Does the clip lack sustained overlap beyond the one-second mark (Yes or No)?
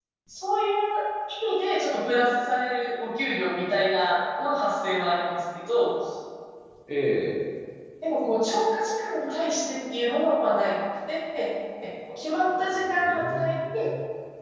No